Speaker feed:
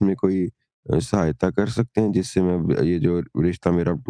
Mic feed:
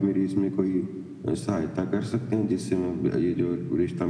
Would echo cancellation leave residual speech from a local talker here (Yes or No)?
No